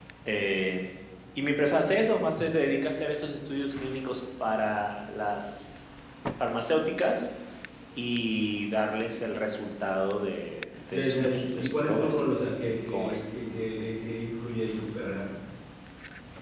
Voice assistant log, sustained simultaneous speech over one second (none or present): present